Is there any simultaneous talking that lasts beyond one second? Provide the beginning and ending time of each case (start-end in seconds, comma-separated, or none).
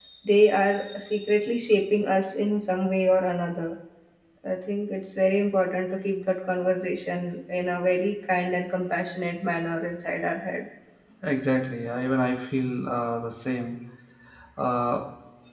none